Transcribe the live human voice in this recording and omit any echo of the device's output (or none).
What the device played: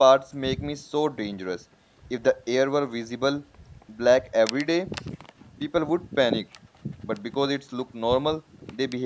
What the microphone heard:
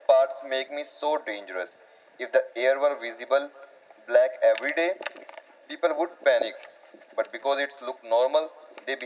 none